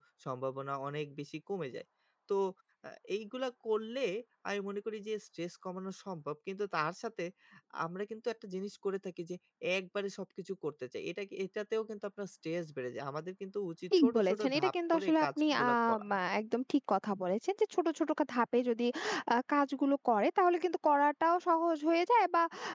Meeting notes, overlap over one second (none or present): present